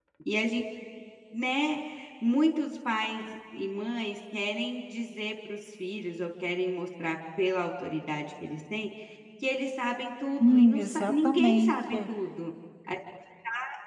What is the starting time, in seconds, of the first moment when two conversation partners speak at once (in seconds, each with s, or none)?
10.4 s